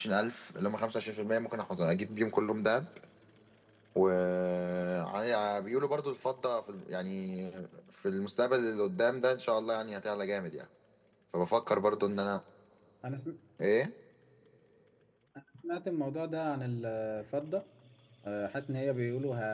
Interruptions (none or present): none